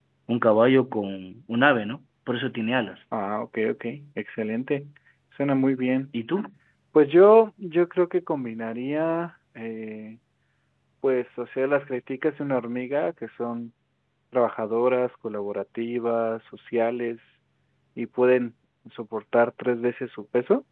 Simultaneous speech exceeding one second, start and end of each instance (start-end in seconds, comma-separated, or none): none